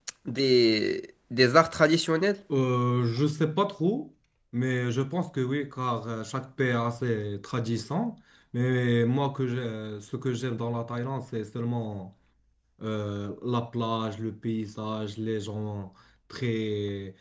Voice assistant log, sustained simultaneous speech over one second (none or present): none